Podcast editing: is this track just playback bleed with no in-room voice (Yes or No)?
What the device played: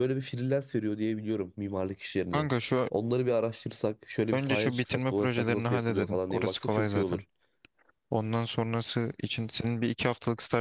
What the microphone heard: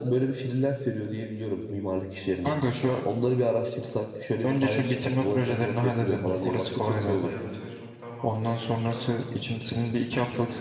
No